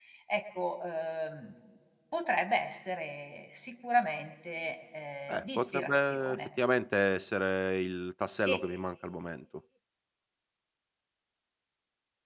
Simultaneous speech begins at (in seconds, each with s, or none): 5.3 s